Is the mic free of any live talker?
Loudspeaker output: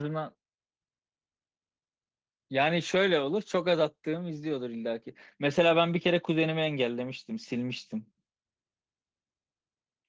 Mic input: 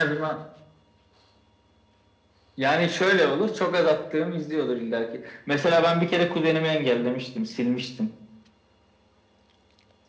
Yes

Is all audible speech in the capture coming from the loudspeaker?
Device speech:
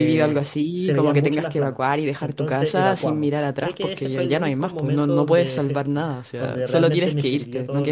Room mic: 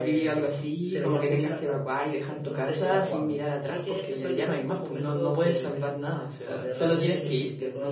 Yes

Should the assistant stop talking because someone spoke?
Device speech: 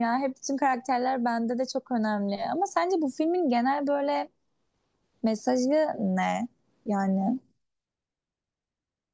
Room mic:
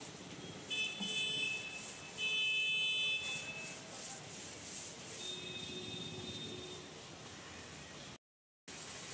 No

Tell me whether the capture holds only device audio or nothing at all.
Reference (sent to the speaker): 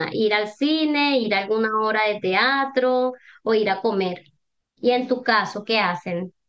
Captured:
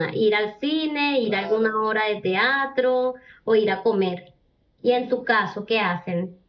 No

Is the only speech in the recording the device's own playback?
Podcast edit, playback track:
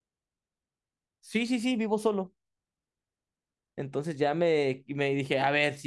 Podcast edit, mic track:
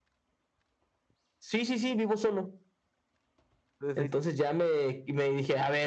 No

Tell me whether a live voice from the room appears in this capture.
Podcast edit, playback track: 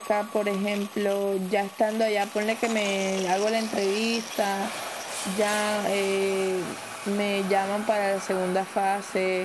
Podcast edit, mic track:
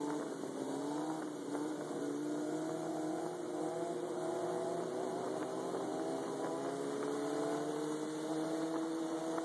No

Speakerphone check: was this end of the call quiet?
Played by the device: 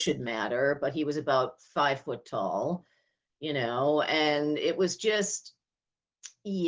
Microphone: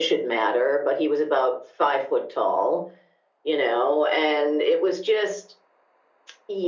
Yes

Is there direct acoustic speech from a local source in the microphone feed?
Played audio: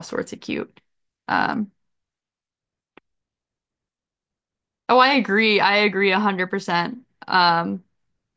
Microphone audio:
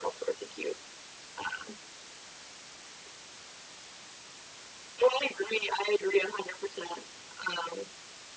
No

